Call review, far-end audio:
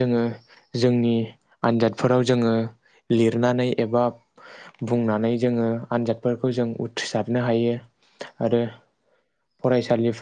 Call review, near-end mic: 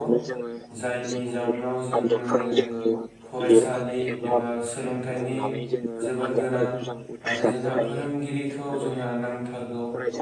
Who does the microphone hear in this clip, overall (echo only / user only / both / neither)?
both